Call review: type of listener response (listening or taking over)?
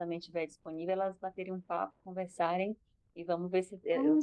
taking over